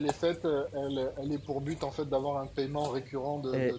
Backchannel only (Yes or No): No